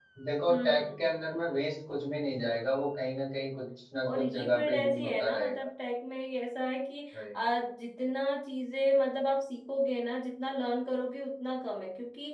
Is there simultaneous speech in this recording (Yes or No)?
Yes